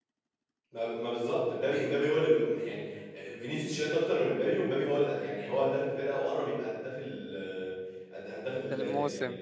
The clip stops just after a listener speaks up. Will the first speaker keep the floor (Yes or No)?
Yes